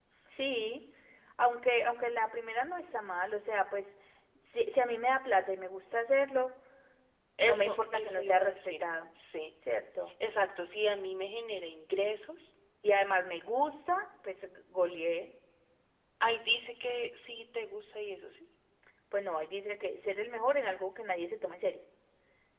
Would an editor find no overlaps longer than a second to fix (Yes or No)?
No